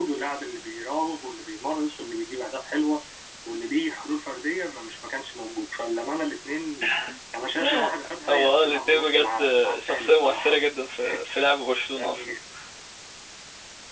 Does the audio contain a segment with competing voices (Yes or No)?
Yes